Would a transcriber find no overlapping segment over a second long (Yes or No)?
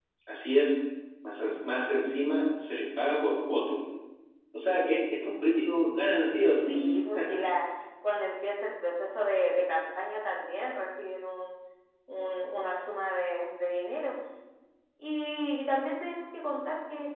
Yes